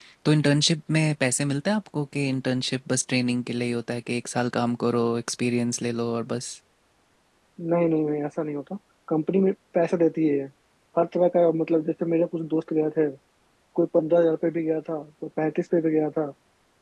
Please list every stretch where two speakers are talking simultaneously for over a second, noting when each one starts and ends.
none

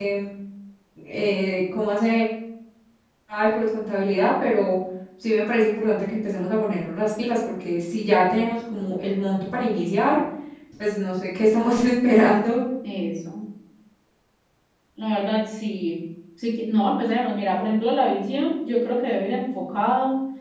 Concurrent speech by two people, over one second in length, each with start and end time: none

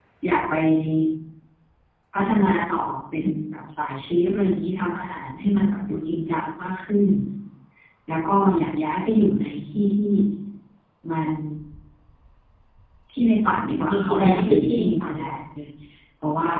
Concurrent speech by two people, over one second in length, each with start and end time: 13.9-15.4

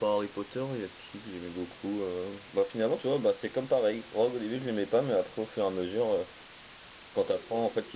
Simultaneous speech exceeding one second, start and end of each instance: none

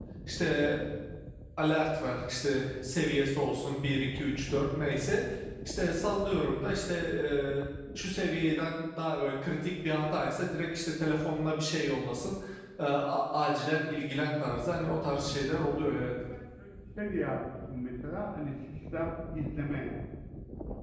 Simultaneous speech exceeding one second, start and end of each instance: none

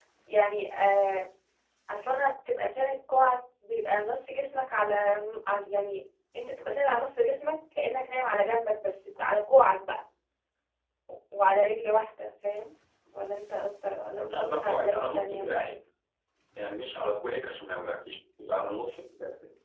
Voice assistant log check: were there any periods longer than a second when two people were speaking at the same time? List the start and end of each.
14.1-15.5

